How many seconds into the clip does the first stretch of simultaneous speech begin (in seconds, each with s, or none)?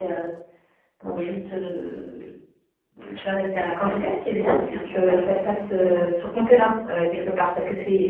3.8 s